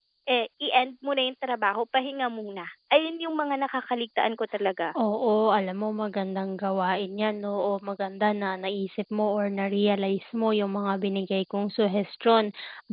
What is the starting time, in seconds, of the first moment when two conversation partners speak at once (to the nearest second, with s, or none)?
none